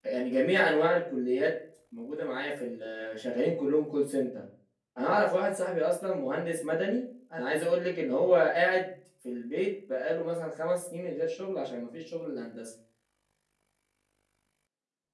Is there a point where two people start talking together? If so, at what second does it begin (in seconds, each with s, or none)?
none